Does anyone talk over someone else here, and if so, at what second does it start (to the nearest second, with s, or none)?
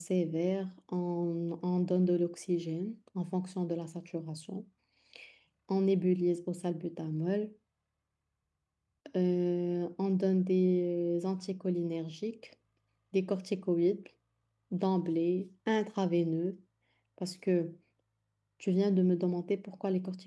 none